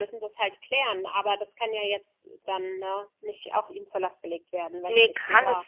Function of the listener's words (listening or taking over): taking over